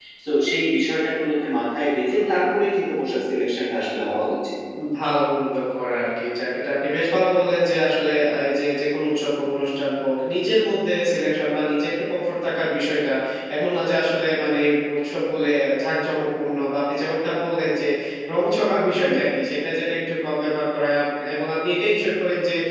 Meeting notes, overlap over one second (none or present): none